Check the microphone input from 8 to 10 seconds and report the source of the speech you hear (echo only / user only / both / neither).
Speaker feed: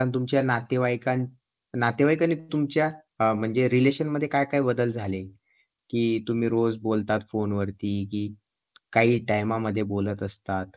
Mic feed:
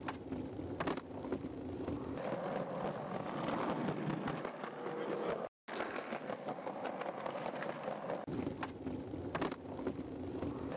neither